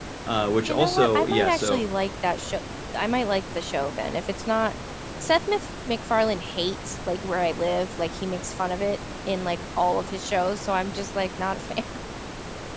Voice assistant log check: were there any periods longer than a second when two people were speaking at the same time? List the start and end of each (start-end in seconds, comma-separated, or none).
0.7-1.9